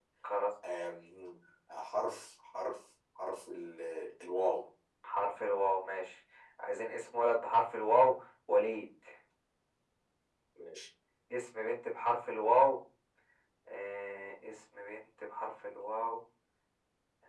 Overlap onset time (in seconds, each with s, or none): none